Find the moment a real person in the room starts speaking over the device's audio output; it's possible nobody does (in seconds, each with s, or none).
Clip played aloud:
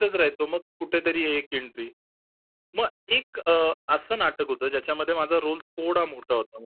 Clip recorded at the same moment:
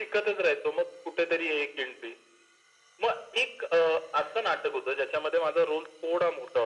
none